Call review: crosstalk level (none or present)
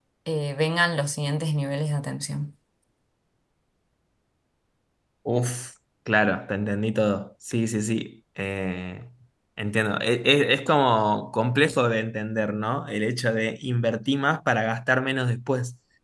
none